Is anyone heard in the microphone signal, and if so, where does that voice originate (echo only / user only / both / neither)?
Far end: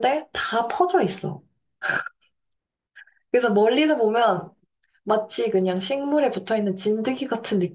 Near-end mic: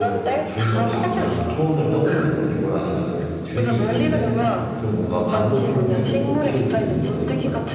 both